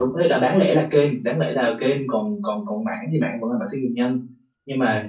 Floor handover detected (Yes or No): No